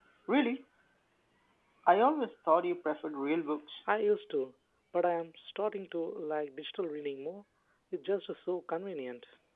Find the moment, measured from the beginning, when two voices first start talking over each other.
none

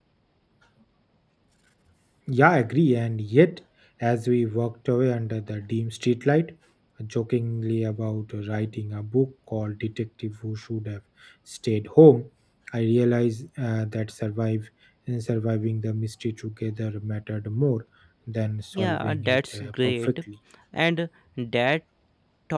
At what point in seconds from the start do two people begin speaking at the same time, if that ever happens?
19 s

